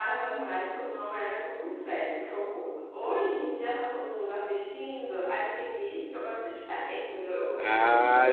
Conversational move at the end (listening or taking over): taking over